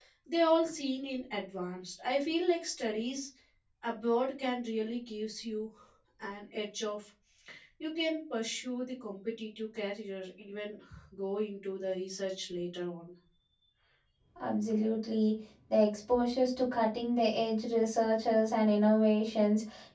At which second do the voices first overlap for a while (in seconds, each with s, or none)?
none